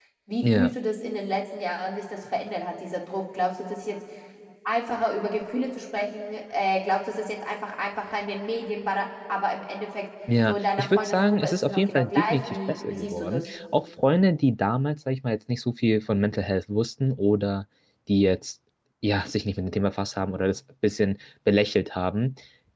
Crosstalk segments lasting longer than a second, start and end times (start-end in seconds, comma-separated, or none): 10.5-13.4